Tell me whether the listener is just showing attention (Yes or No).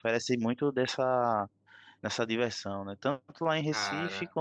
Yes